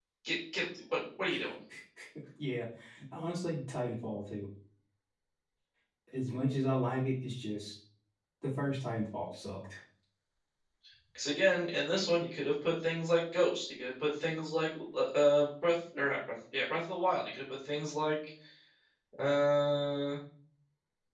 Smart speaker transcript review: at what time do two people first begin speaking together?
none

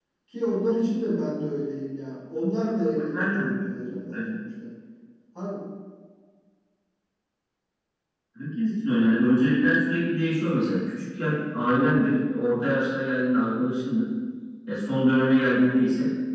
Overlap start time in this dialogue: 3 s

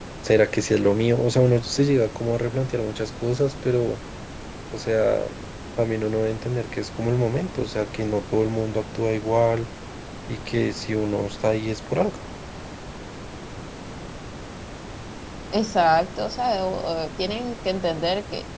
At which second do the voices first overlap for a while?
none

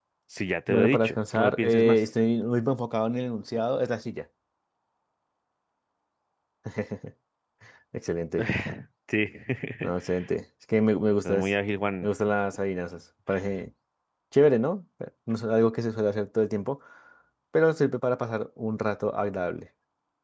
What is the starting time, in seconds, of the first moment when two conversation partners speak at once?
1 s

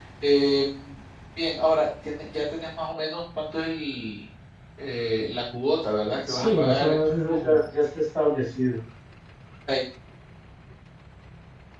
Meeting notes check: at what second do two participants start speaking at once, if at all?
6 s

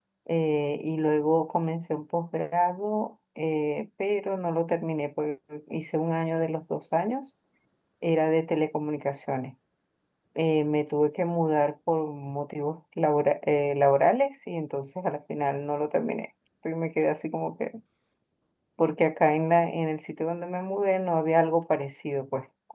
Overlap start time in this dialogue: none

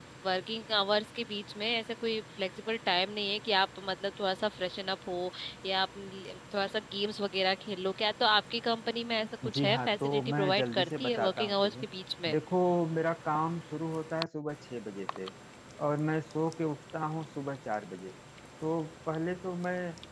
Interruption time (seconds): 9 s

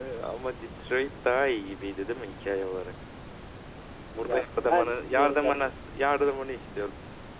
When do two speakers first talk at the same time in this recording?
4 s

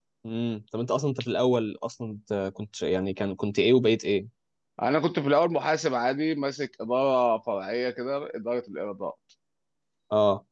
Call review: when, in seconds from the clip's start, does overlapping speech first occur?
none

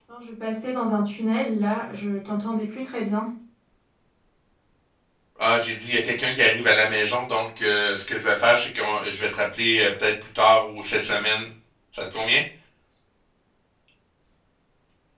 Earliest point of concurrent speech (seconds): none

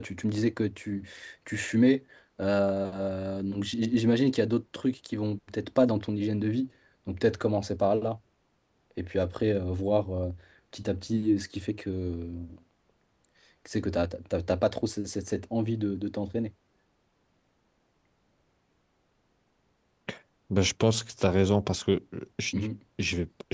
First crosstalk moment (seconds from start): none

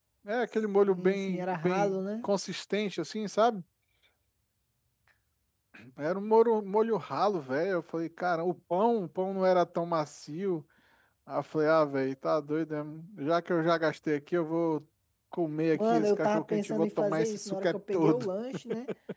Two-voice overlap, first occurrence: 1 s

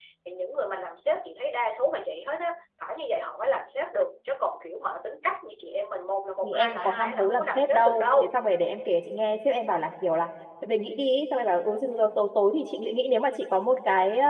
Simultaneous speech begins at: 6 s

